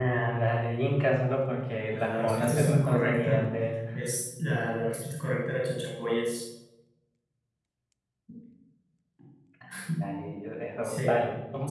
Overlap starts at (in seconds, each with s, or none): 1.9 s